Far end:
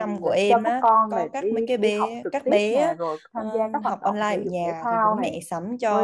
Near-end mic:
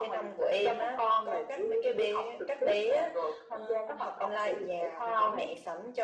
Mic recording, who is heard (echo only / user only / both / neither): echo only